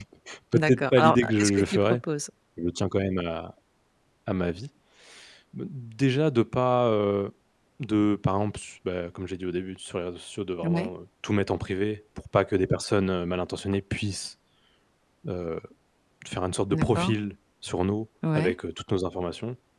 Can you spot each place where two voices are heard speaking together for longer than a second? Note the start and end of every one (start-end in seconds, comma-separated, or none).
0.5-1.8